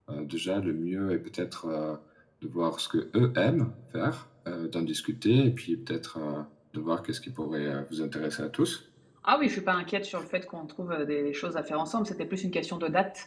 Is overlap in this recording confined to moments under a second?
Yes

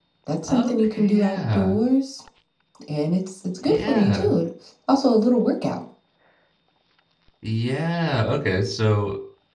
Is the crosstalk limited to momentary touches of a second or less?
No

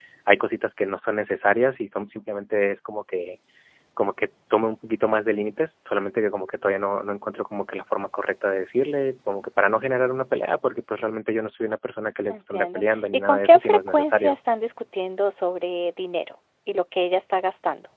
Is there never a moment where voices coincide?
No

